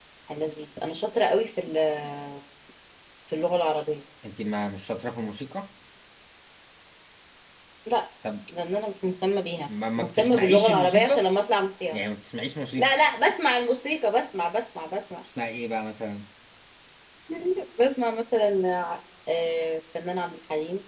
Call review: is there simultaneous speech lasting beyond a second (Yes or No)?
Yes